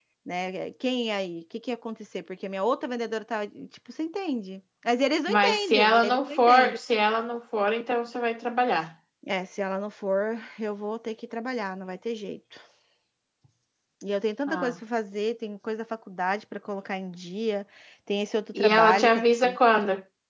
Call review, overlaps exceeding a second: present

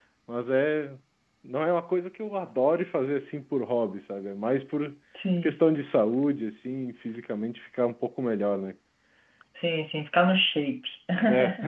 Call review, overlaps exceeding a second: none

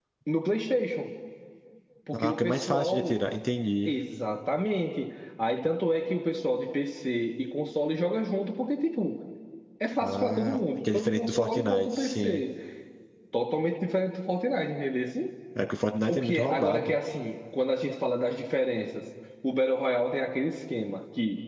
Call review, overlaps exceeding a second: present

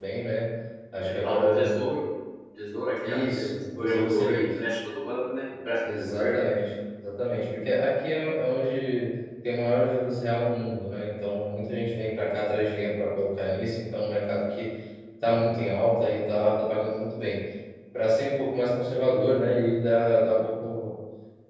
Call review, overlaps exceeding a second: present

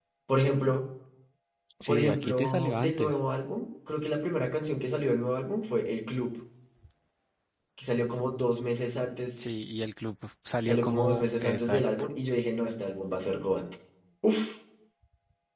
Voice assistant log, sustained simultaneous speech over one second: present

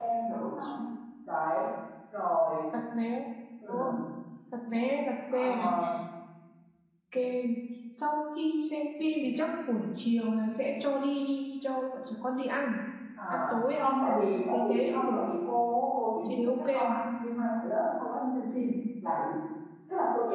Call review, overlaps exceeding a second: present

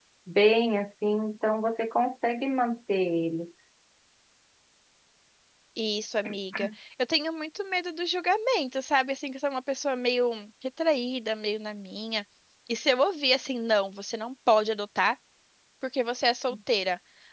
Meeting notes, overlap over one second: none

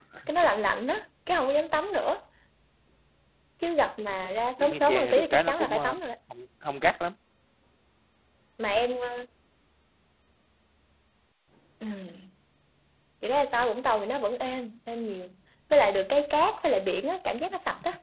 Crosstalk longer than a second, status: present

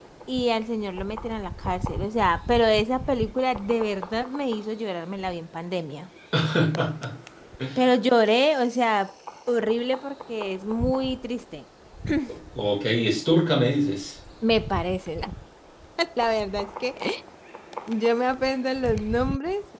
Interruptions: none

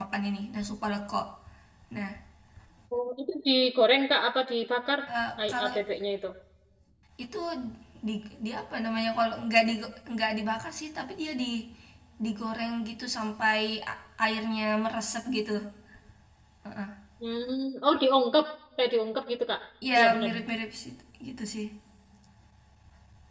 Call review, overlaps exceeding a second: none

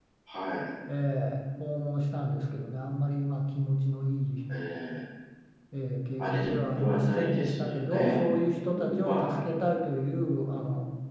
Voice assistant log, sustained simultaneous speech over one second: present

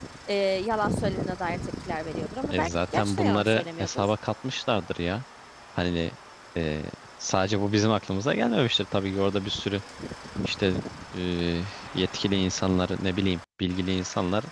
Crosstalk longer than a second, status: present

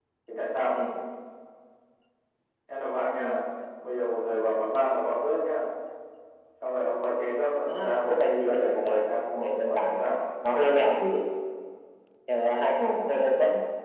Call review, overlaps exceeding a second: present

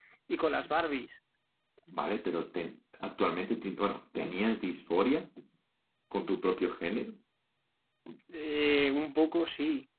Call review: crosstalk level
none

